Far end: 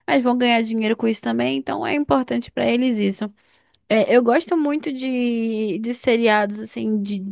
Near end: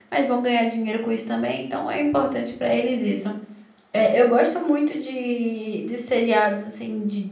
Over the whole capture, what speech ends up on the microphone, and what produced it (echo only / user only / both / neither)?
echo only